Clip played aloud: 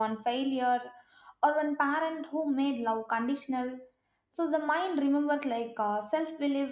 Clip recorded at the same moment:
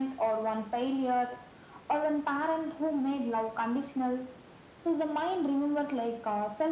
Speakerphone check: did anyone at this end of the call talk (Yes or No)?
No